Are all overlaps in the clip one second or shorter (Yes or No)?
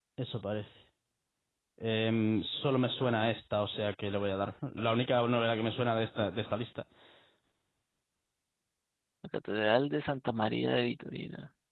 Yes